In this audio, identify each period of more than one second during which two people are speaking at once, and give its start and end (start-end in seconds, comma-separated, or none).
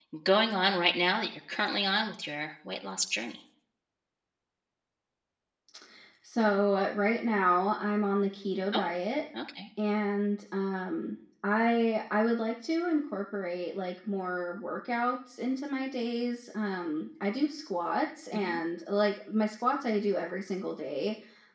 none